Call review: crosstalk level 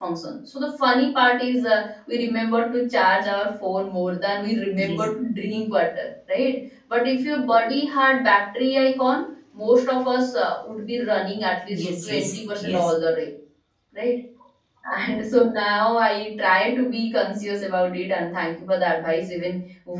present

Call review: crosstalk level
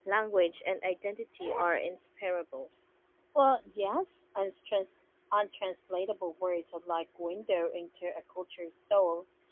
none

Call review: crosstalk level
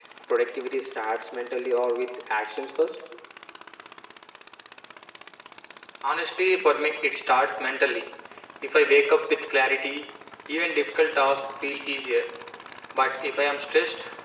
none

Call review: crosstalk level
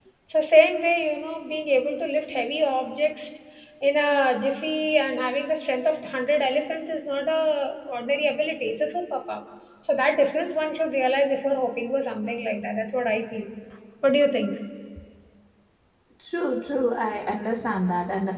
none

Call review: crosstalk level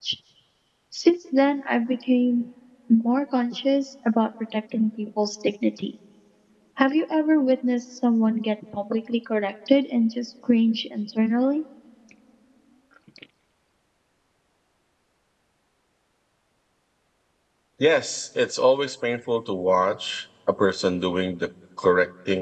none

